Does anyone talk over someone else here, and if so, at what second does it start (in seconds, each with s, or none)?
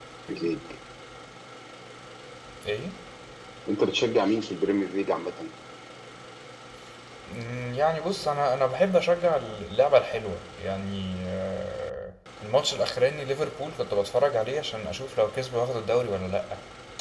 none